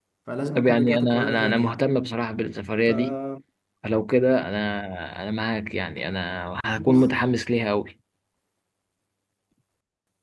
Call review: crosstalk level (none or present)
present